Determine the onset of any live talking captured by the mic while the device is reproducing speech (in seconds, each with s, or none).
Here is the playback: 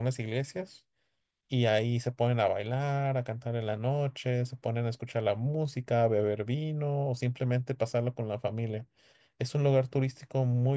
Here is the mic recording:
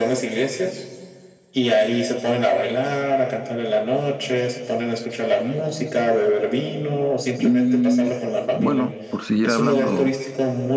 7.4 s